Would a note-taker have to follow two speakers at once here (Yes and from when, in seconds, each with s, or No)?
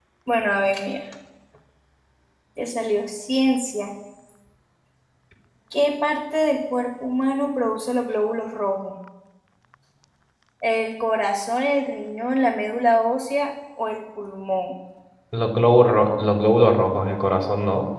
No